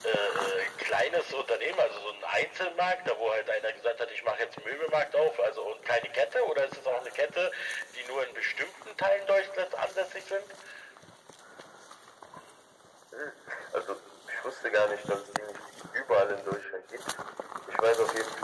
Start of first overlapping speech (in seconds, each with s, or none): none